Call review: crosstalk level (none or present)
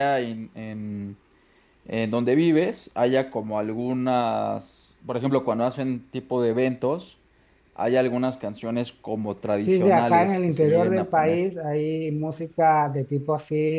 present